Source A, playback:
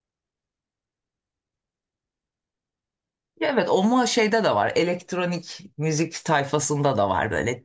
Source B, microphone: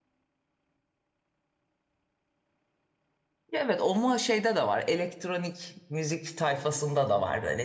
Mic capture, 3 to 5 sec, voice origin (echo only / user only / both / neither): echo only